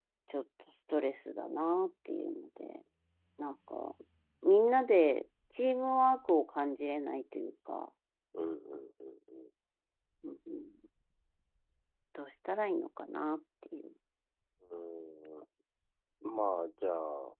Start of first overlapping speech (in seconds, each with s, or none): none